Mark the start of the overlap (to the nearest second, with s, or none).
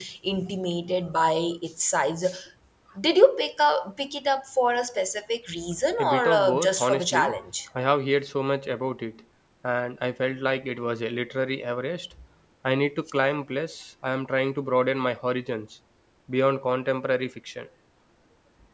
6 s